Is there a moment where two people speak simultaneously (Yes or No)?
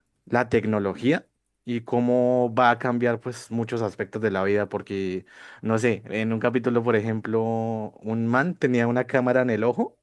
No